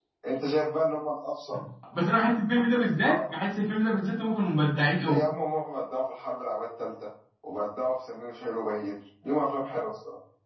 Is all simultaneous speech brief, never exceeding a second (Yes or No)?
Yes